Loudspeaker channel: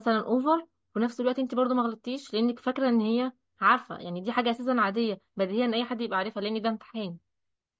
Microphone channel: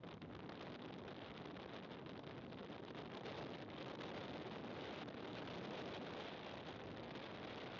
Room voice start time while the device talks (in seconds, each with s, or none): none